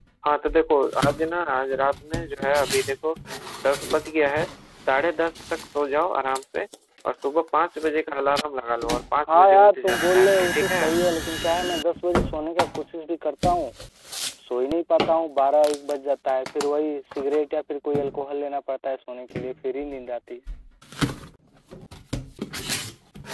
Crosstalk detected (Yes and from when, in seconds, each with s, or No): Yes, from 9.3 s